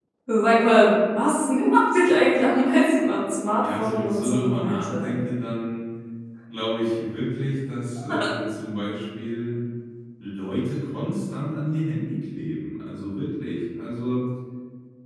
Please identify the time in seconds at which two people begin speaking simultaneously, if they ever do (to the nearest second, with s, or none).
4 s